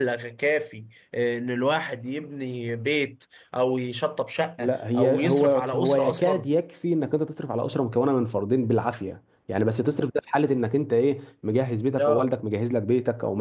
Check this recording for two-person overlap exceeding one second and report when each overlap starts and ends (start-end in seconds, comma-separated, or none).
4.6-6.5